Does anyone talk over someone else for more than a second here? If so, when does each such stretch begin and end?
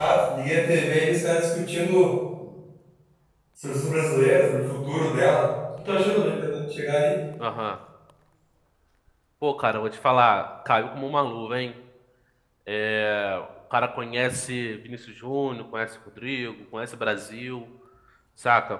none

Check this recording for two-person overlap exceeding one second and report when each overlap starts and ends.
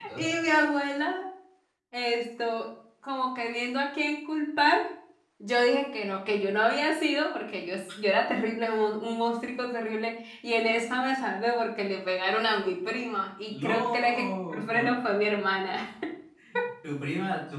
13.5-14.9

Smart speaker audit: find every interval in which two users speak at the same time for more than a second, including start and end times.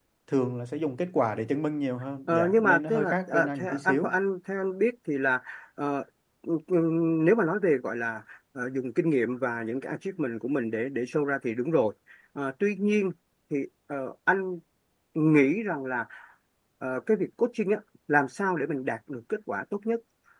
2.3-4.1

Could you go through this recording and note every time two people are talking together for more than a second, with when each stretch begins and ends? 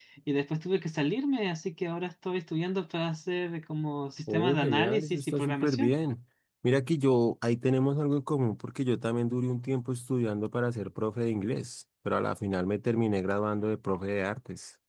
4.3-5.9

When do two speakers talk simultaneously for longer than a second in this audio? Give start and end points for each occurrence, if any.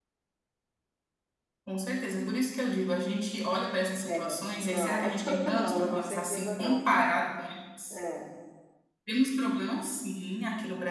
4.6-6.9

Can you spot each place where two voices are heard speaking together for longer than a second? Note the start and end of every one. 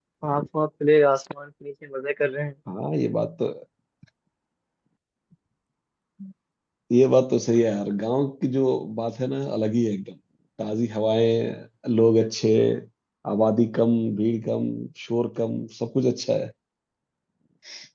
none

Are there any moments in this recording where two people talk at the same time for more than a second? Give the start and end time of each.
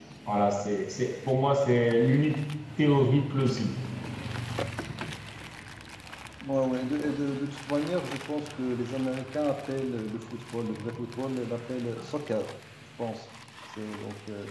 none

